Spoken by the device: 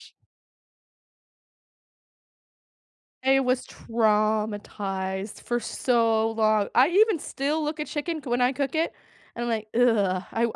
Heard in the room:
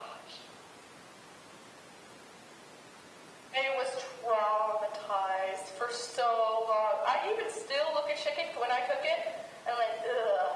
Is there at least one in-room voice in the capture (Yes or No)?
No